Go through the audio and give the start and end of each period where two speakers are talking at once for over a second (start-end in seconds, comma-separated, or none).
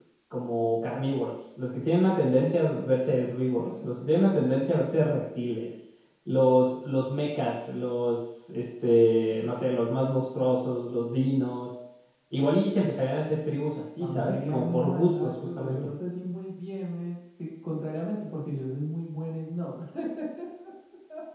14.0-15.9